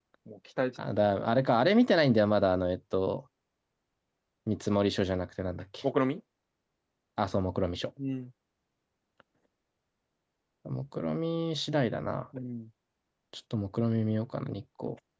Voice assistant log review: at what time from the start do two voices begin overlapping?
none

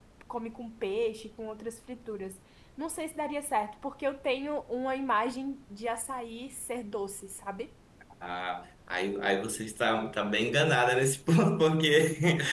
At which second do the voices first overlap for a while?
none

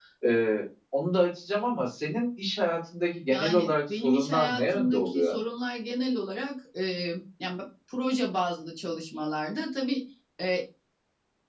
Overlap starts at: 3.3 s

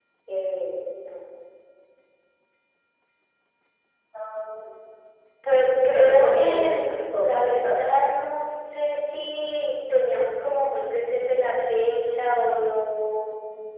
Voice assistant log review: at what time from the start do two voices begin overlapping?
5.9 s

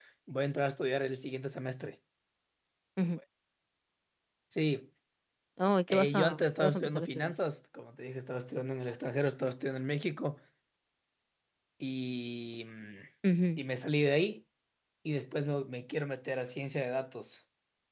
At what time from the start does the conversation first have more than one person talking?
5.9 s

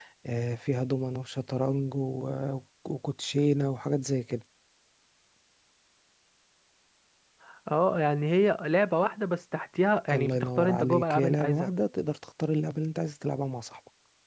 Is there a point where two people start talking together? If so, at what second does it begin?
10.1 s

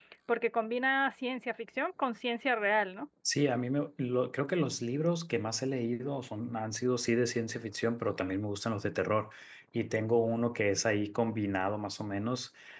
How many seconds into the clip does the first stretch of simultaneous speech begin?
none

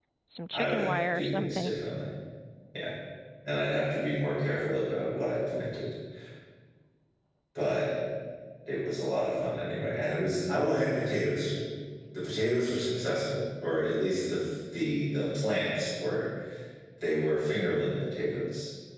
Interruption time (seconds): 0.5 s

